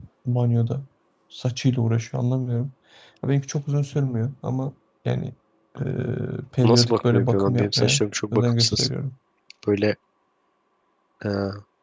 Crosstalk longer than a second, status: present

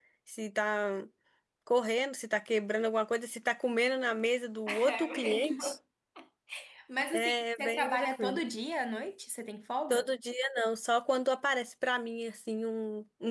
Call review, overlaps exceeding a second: present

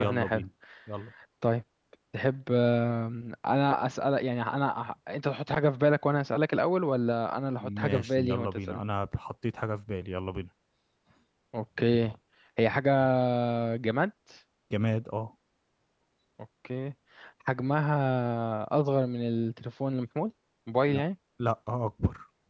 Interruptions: present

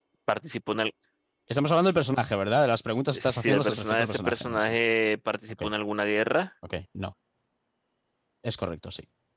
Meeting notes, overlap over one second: present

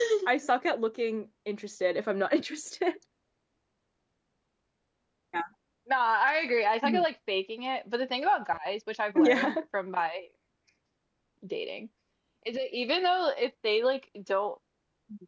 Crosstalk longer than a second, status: none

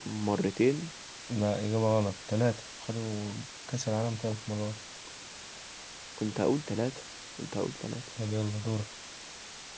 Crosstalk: none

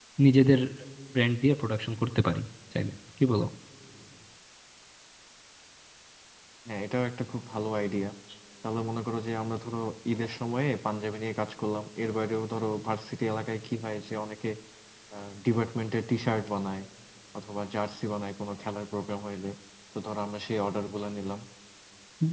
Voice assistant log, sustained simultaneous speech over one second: none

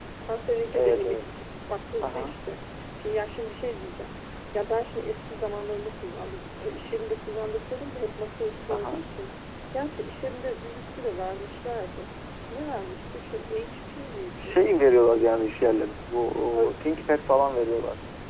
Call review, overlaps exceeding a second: none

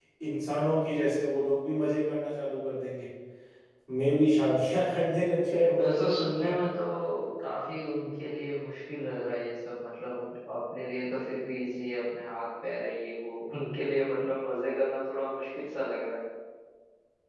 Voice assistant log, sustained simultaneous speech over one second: none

